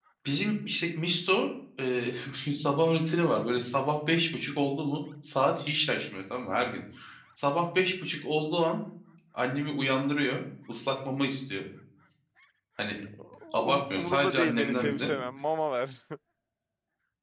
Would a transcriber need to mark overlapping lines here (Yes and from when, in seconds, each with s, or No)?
Yes, from 13.6 s